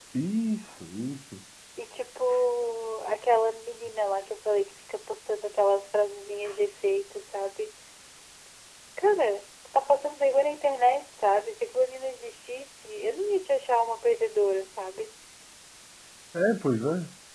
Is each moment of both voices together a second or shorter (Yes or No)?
Yes